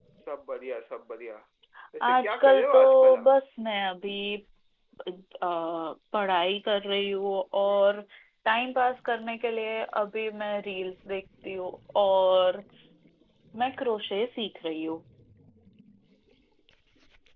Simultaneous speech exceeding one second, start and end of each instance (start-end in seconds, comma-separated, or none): 2.0-3.3